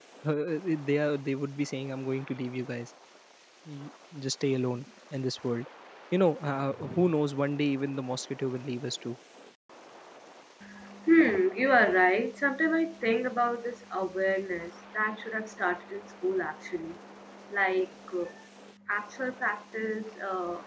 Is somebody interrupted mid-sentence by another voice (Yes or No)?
No